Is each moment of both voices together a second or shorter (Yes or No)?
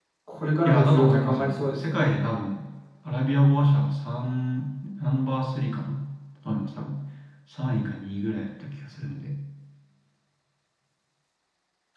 No